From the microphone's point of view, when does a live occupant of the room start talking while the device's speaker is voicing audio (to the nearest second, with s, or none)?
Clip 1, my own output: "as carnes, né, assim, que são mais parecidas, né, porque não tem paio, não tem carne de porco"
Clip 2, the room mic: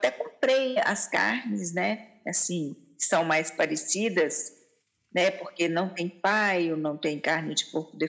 none